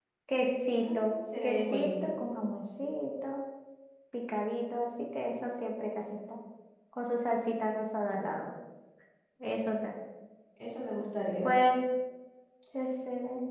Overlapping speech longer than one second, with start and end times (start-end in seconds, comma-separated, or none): 0.8-2.1